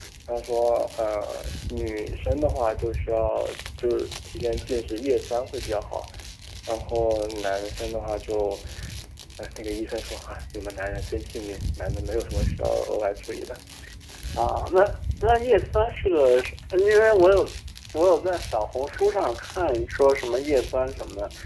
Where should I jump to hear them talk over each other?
none

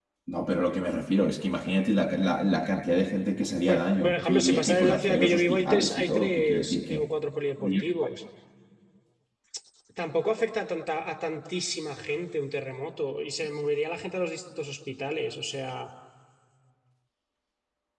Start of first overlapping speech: 3.6 s

